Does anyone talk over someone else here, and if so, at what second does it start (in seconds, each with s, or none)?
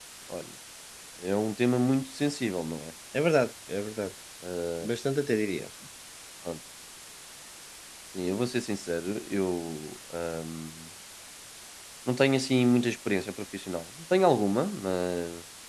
none